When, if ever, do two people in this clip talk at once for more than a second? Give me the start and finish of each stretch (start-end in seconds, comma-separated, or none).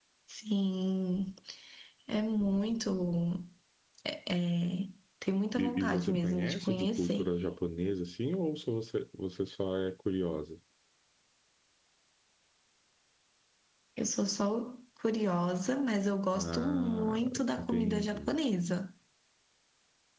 5.6-7.3, 16.3-18.4